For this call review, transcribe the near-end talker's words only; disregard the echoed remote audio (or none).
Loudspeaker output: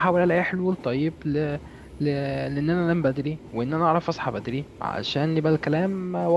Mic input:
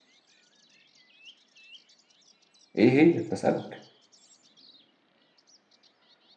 ايه هي؟ بسألك